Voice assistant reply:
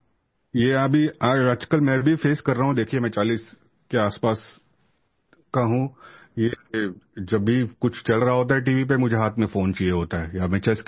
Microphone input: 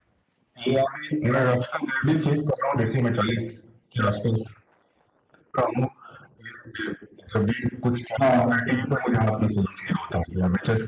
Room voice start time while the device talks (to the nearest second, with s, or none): 8 s